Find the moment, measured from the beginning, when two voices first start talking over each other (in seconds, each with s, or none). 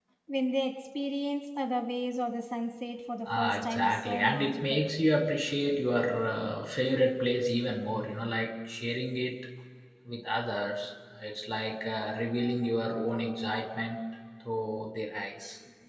3.2 s